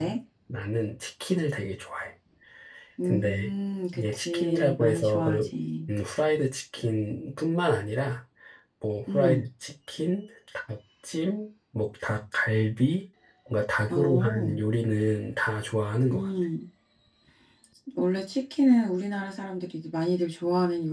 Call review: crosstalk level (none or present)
present